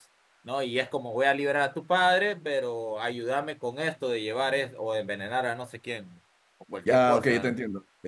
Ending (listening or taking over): taking over